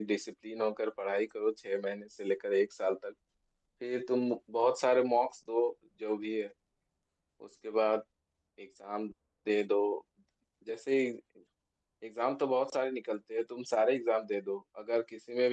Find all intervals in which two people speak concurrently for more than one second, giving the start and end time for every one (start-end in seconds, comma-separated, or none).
none